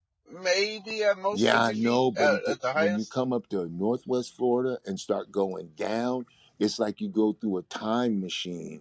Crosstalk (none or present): present